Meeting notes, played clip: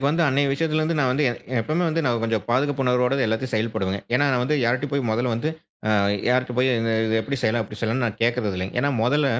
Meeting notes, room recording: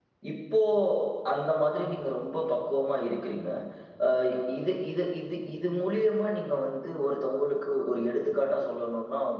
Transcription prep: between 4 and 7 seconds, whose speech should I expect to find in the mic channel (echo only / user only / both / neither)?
user only